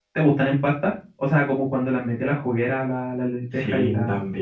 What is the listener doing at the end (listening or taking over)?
taking over